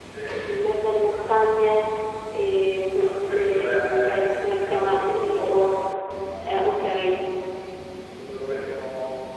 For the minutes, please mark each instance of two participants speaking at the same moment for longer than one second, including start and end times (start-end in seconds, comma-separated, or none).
3.0-5.8